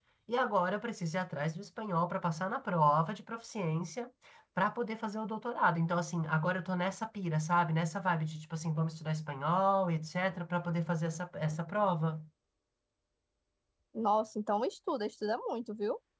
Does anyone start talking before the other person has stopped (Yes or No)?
No